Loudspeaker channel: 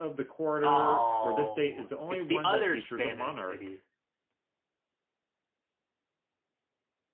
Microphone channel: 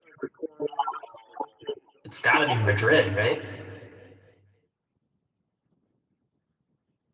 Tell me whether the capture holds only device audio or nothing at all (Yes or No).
No